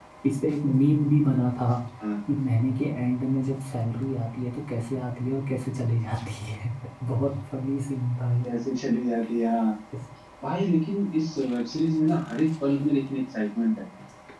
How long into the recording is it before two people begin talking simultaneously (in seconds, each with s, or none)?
none